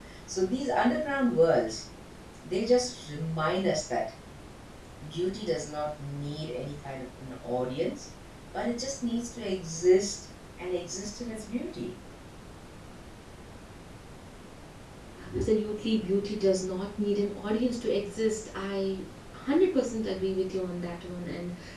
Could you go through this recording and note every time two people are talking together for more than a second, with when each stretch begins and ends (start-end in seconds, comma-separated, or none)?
none